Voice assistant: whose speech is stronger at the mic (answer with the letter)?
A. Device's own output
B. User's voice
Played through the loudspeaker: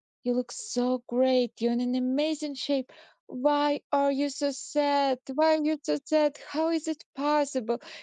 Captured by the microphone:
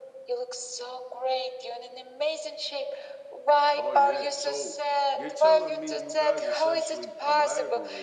A